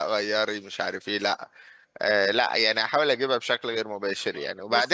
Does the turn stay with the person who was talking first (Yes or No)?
Yes